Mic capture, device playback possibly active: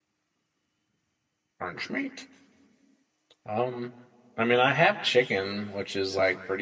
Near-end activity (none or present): present